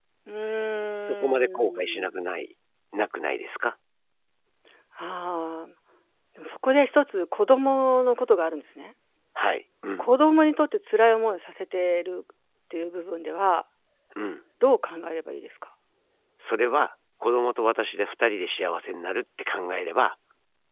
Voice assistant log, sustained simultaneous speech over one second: present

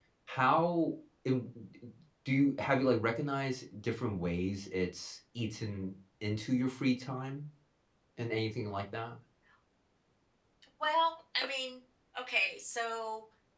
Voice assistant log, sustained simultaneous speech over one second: none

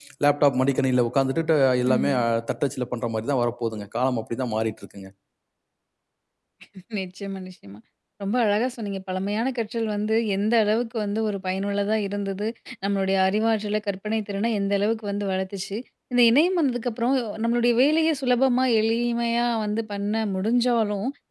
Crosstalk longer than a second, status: none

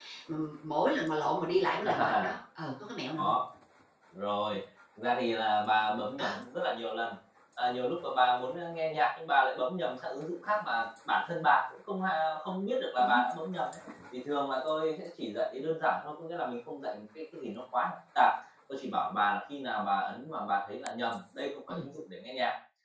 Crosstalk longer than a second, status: none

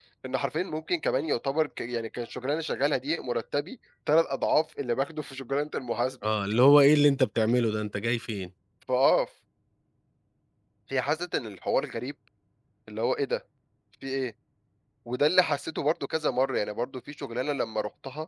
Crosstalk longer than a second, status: none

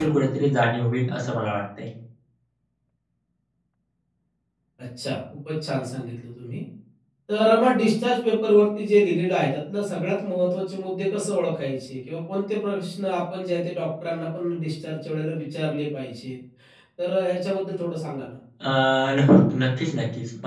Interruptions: none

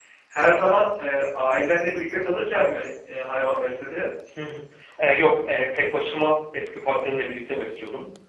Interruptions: none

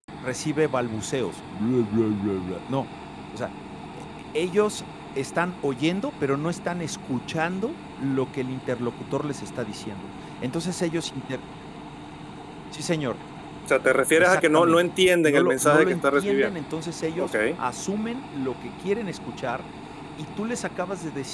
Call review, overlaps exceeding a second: present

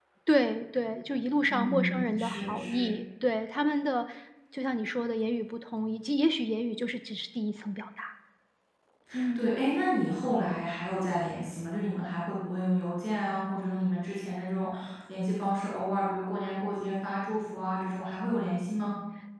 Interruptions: present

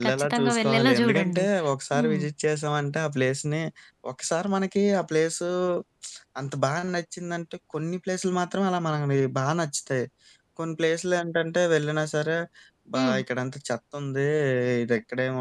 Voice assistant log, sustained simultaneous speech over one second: present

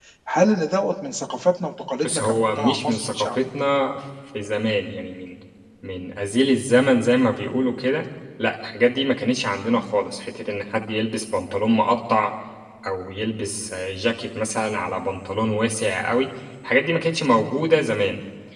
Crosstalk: present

